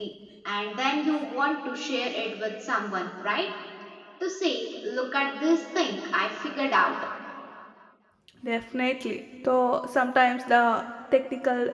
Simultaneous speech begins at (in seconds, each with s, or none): none